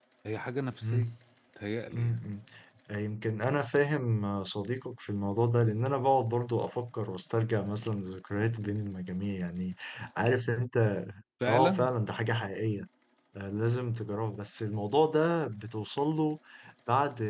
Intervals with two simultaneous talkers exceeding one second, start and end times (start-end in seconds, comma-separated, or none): none